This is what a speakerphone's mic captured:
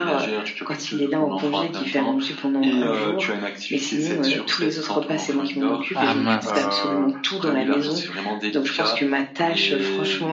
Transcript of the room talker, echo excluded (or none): Ah mince!